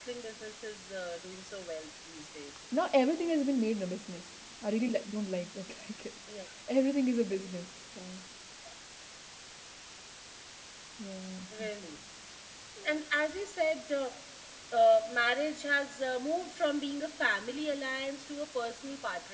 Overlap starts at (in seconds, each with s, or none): none